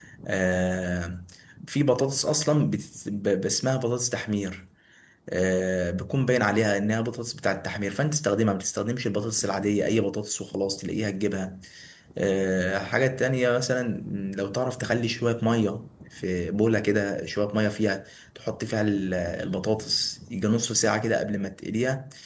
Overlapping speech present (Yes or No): No